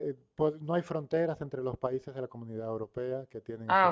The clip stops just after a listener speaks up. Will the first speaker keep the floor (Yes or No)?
Yes